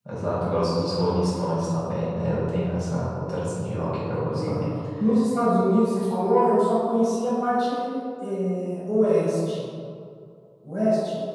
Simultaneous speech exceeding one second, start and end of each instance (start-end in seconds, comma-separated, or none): none